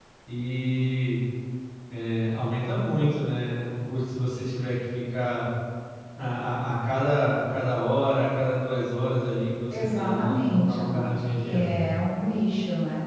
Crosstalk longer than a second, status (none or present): present